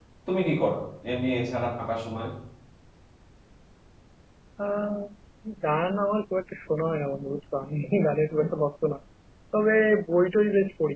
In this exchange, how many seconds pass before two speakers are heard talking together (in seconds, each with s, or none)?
none